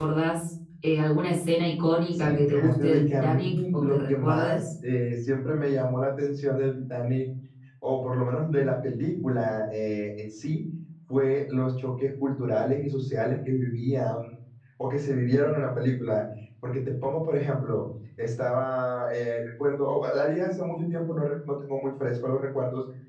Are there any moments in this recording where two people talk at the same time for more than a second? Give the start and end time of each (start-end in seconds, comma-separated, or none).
2.1-4.6